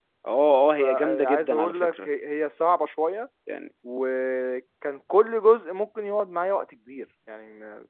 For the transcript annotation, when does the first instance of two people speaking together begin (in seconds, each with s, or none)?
0.8 s